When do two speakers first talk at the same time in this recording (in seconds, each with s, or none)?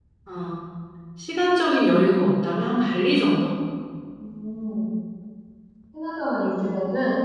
none